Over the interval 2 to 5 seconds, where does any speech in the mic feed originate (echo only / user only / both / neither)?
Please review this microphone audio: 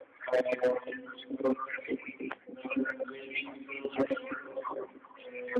echo only